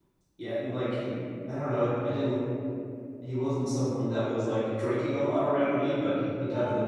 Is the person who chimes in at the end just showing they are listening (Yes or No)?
Yes